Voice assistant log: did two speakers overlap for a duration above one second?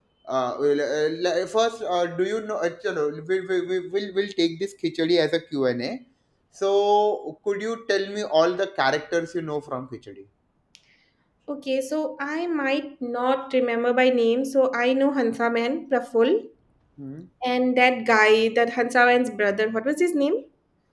No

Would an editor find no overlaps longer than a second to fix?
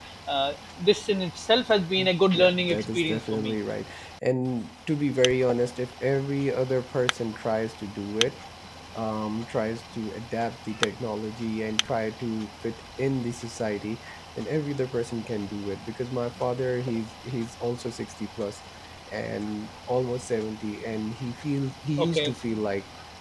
No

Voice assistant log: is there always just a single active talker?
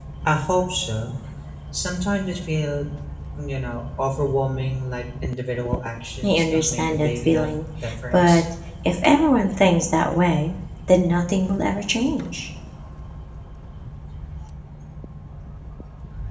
No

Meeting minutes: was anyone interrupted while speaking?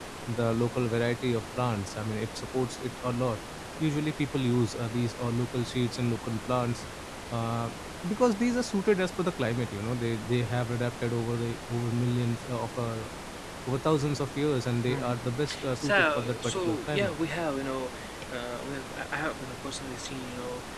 Yes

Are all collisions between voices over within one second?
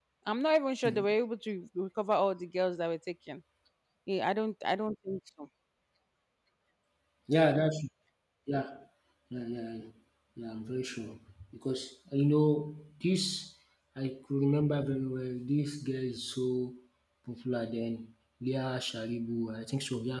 Yes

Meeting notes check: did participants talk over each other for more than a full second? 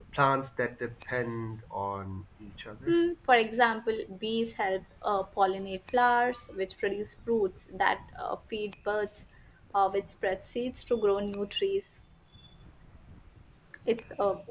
No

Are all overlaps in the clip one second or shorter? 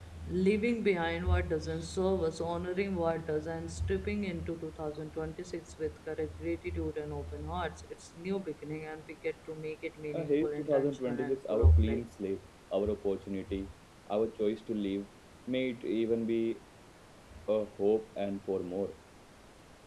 No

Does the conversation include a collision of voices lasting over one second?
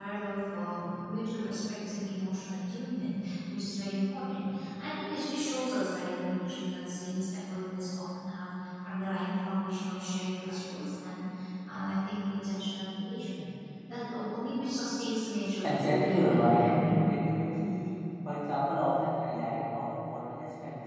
Yes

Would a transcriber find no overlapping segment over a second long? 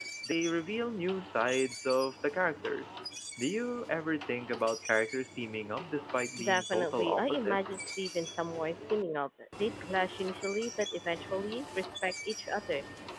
No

